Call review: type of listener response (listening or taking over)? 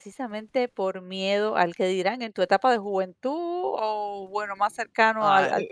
taking over